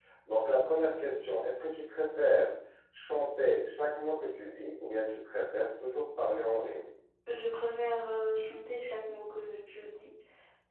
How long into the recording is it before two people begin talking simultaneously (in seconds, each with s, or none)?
none